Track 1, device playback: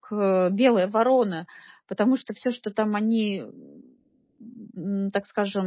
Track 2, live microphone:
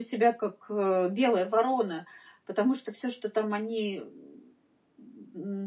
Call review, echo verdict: present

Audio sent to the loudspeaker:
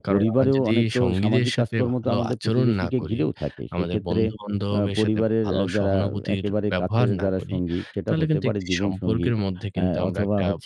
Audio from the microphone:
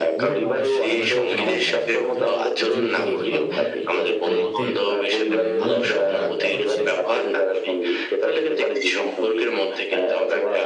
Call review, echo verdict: present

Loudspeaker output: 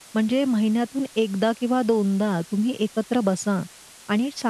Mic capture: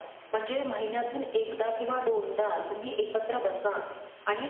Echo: present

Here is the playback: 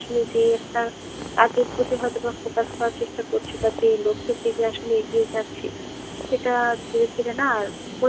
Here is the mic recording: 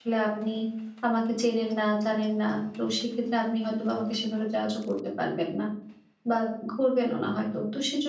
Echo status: none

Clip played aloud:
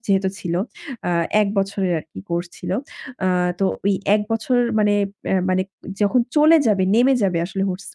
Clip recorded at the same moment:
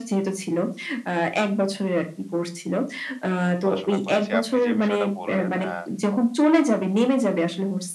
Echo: present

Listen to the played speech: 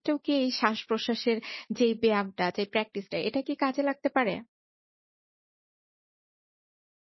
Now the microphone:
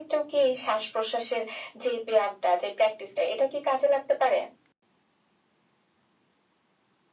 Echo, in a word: present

